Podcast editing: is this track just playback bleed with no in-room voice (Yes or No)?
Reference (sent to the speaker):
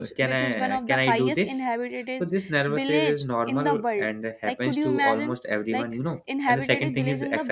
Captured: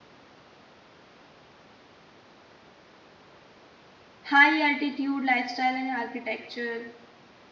No